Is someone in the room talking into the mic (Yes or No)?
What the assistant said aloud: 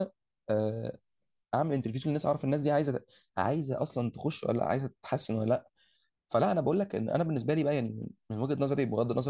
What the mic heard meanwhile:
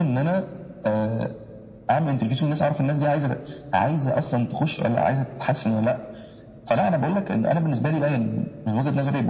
No